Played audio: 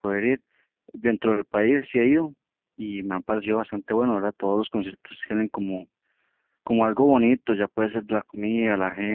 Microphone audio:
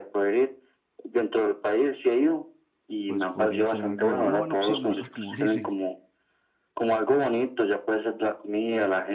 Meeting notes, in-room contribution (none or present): present